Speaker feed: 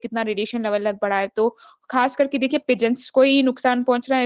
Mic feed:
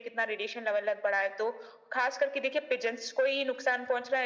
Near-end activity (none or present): none